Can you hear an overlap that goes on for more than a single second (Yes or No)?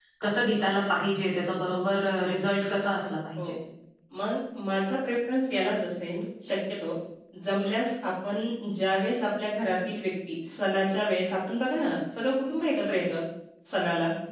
No